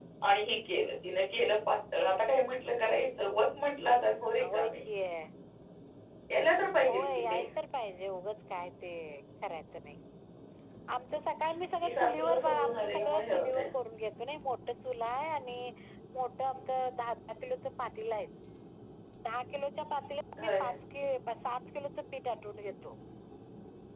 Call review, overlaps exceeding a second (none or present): present